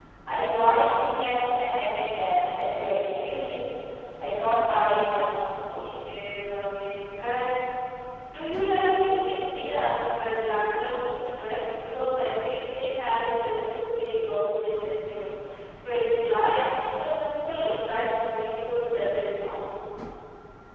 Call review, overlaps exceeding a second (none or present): none